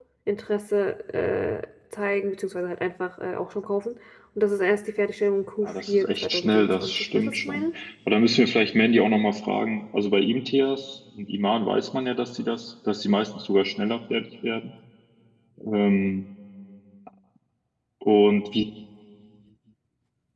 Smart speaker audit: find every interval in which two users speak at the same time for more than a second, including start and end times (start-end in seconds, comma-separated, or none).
5.6-7.7